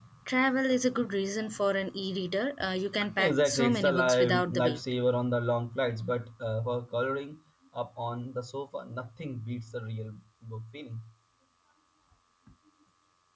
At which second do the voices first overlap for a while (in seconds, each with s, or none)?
3.2 s